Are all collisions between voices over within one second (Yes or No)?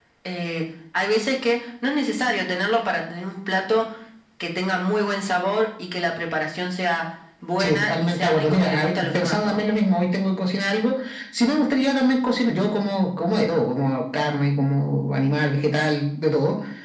No